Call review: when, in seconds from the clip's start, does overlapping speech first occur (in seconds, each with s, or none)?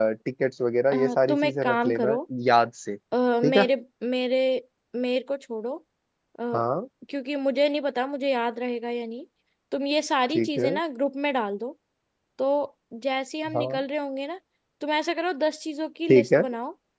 0.9 s